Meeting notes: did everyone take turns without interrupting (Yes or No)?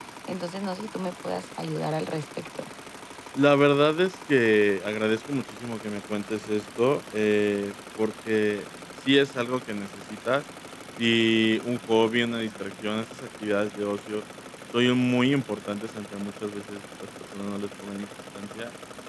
Yes